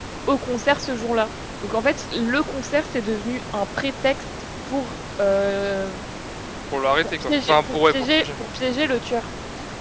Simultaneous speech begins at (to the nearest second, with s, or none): 7 s